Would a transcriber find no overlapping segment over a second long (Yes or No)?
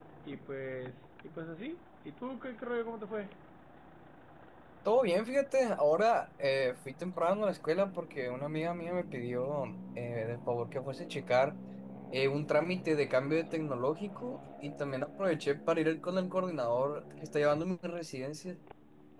Yes